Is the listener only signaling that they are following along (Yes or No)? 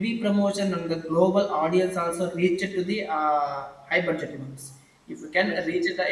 Yes